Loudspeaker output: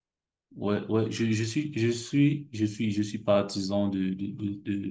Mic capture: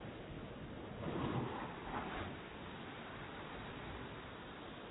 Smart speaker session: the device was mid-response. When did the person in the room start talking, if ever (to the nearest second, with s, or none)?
none